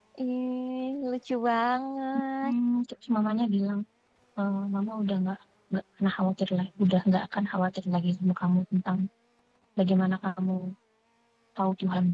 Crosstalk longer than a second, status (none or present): none